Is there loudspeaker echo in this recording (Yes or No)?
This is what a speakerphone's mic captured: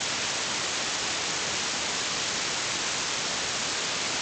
No